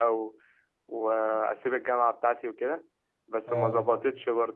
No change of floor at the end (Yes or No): Yes